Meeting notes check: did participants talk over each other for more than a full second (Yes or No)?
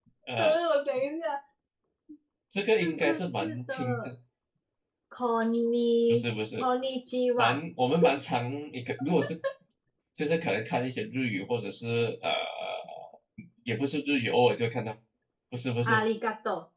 Yes